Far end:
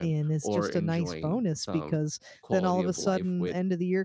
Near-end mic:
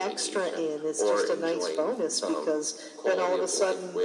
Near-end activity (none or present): none